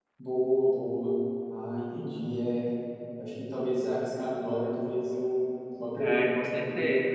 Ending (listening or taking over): taking over